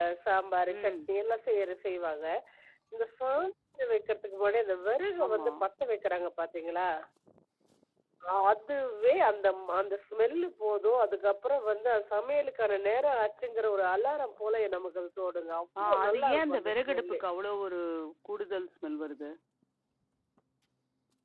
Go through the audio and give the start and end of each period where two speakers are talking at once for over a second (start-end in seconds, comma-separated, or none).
15.8-17.2